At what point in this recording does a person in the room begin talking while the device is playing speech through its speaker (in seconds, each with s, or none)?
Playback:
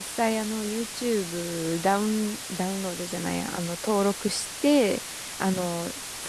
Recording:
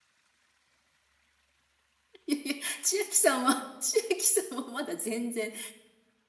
2.3 s